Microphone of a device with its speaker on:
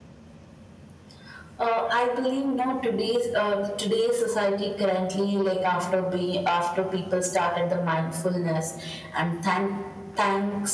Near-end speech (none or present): none